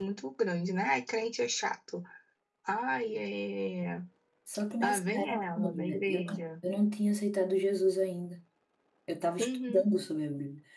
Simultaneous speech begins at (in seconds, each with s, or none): 4.8 s